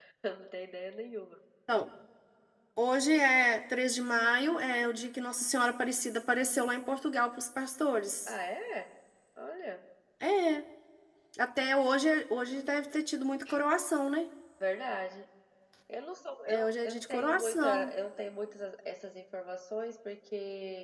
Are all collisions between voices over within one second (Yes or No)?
No